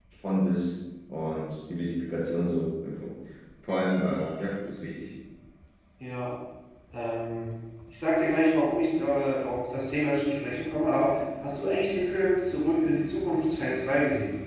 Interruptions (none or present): none